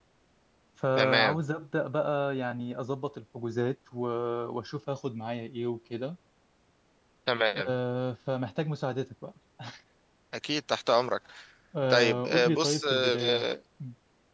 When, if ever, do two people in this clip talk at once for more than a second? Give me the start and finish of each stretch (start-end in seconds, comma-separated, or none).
11.9-13.5